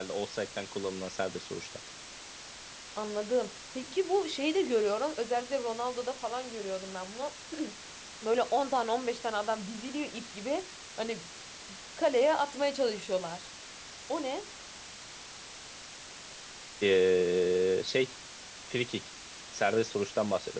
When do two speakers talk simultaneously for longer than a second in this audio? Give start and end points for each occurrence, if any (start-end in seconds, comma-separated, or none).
none